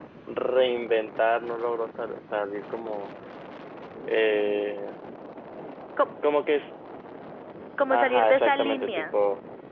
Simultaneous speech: Yes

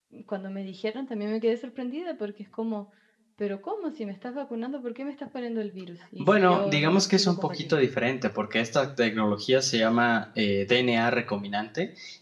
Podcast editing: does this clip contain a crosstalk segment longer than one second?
Yes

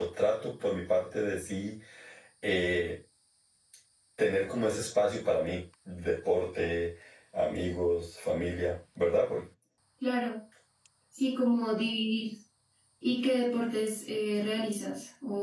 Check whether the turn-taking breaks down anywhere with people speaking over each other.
No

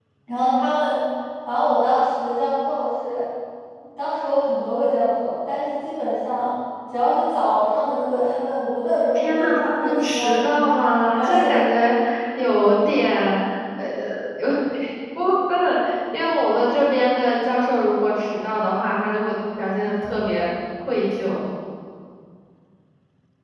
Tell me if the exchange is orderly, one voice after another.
No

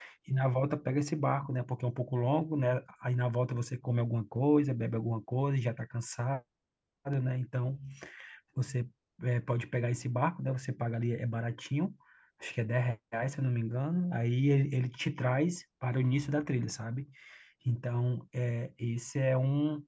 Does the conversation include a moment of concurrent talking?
No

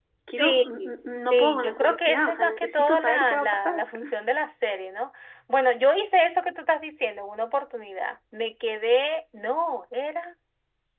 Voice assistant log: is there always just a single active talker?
No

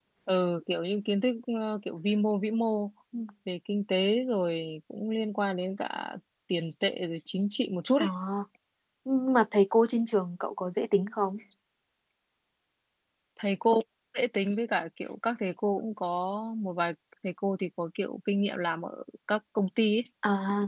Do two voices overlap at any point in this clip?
No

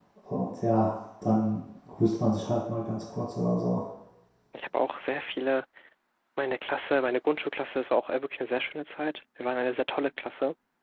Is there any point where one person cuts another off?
No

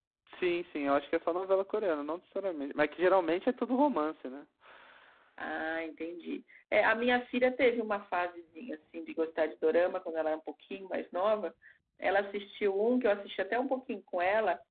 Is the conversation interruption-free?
Yes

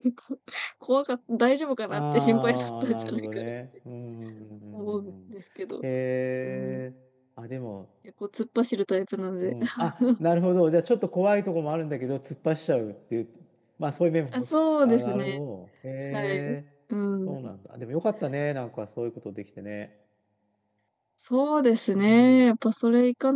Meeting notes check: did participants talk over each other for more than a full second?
Yes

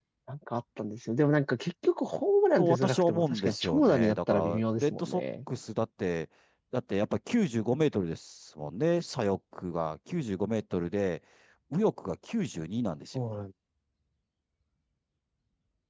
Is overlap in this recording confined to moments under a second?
No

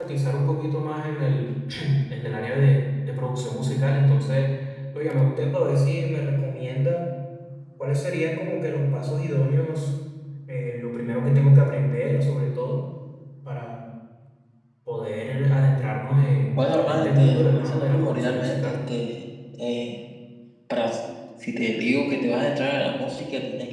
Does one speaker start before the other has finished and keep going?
Yes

